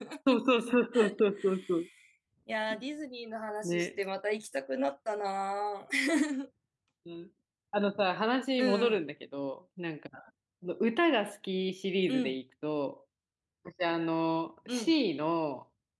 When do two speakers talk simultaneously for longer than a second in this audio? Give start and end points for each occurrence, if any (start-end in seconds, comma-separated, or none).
none